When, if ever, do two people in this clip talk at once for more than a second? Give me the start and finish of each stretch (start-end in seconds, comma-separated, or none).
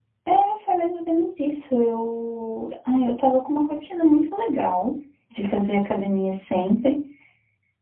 none